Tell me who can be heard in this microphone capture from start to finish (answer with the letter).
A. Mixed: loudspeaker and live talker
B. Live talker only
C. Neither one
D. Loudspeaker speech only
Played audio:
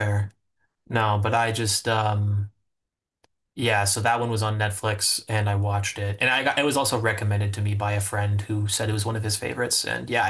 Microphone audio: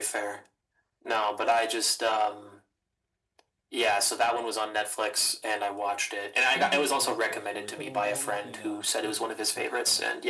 A